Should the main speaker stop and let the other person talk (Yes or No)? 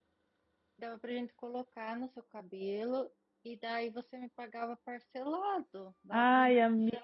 Yes